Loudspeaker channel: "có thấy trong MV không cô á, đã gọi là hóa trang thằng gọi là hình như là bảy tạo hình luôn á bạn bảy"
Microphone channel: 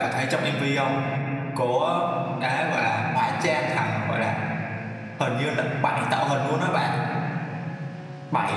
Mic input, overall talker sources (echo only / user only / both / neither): echo only